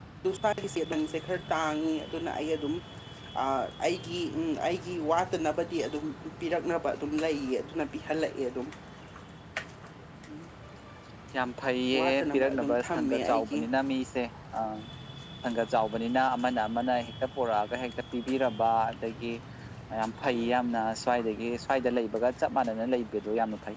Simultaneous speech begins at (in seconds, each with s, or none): 11.9 s